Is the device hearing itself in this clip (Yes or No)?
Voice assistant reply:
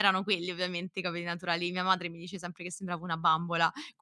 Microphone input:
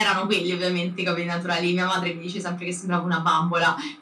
Yes